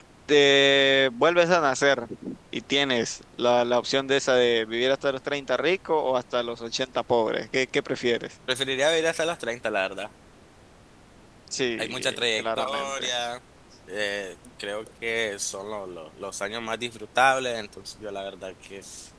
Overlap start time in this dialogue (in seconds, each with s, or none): 11.8 s